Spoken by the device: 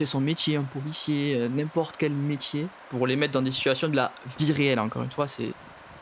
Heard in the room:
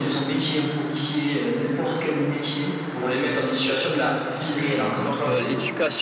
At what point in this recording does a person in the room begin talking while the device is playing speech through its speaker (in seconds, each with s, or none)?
4.9 s